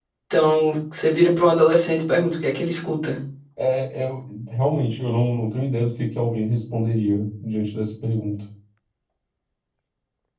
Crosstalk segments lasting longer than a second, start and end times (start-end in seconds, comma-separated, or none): none